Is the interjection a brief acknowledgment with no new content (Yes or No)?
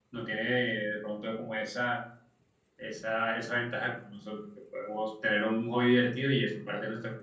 No